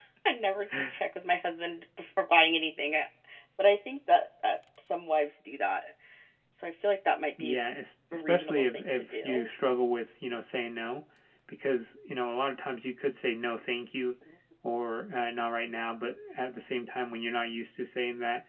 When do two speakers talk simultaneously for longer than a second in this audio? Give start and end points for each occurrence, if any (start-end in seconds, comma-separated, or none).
8.1-9.5